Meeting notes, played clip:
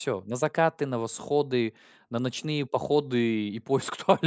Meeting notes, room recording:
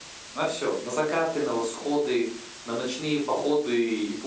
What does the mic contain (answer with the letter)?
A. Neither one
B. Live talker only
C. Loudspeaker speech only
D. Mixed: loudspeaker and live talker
C